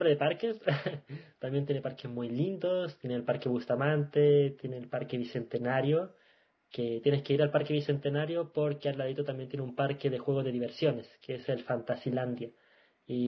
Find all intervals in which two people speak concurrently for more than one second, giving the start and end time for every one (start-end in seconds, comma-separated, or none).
none